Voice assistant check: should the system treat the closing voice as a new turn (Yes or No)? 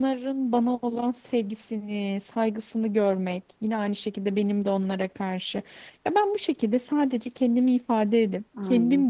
No